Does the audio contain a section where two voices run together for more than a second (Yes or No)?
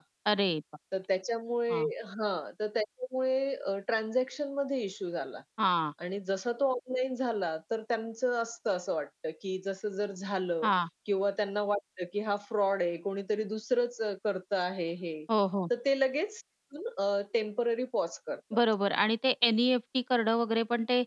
No